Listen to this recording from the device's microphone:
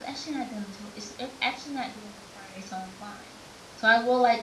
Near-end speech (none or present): present